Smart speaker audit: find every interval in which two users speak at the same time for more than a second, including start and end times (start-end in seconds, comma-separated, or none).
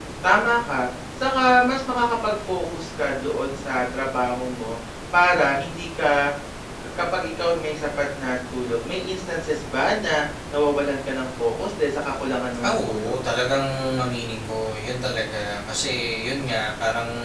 none